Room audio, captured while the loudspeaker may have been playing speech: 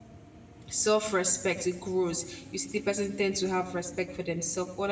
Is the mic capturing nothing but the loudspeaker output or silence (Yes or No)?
No